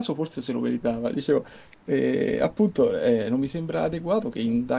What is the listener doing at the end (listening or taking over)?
listening